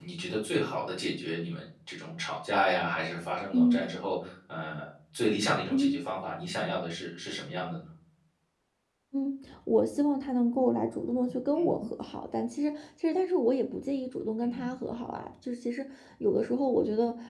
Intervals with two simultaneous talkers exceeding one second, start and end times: none

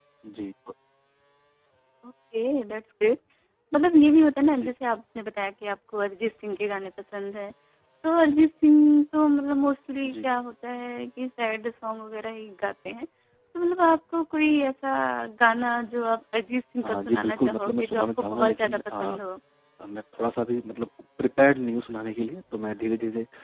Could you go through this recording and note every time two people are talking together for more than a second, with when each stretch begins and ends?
16.8-19.2

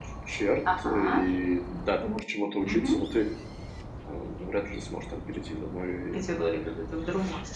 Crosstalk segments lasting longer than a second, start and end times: none

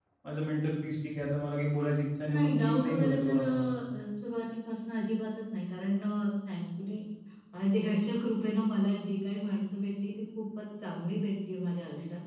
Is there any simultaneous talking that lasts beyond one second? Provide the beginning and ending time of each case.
2.3-3.7

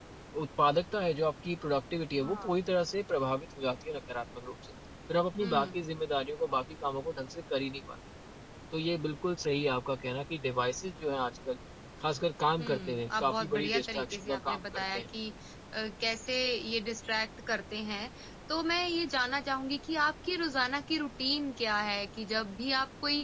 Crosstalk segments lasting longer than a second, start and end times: 12.6-15.0

